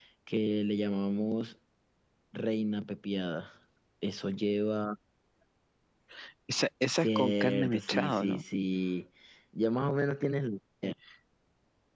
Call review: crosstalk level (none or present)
present